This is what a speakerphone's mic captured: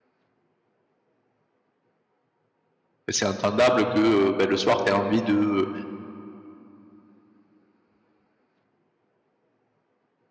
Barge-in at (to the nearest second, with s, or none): 3 s